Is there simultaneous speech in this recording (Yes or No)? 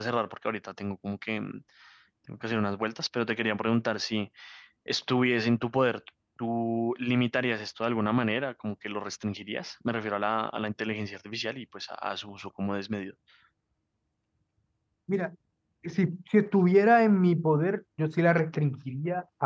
No